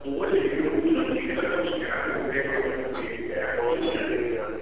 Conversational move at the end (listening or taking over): taking over